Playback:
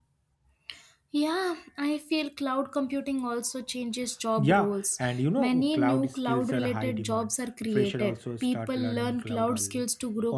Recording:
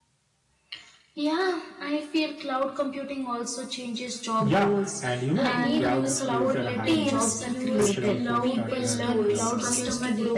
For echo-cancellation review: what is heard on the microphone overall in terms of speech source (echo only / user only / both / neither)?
both